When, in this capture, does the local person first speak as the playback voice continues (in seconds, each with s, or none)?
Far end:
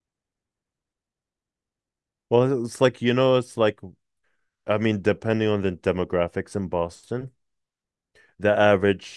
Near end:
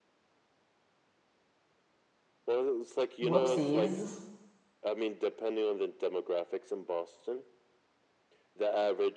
3.2 s